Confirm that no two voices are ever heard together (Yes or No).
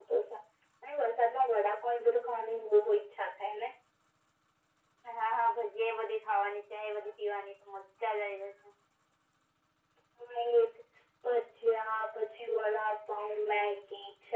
Yes